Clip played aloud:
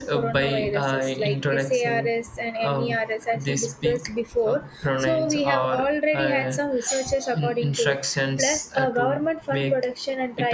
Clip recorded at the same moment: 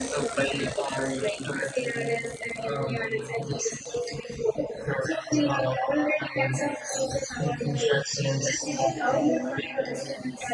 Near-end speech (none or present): present